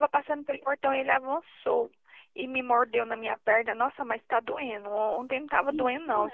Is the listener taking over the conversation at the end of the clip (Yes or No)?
No